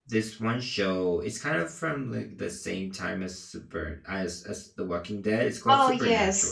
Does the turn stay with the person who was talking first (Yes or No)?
No